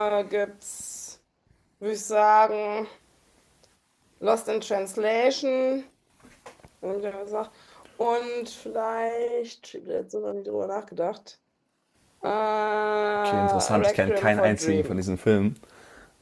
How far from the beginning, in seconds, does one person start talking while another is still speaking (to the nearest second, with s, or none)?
13 s